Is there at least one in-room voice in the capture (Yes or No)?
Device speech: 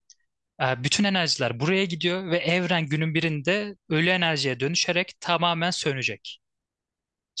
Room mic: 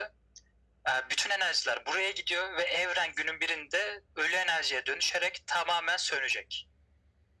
No